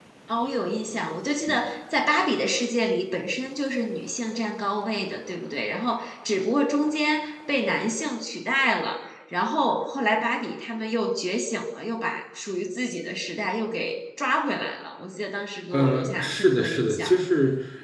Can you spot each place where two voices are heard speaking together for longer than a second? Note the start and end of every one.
15.7-17.1

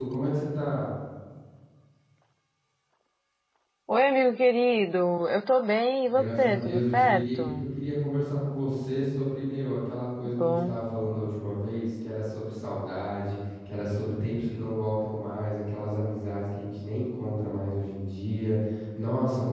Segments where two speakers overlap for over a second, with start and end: 6.1-7.7

